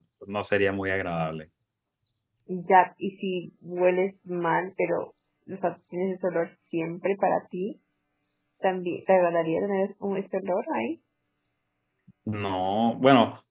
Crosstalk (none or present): none